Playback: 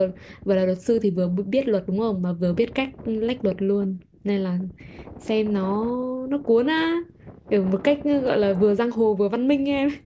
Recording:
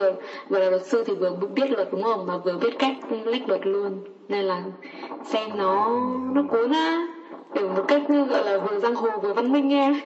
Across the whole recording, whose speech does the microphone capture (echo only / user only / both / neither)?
both